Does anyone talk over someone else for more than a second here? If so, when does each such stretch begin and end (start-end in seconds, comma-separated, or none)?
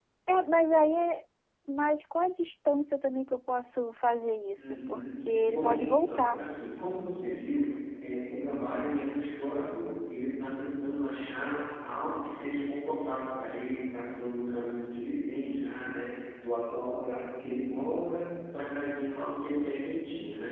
4.6-6.4